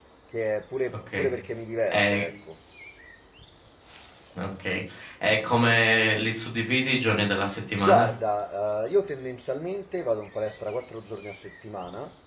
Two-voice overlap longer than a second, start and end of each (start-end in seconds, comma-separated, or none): none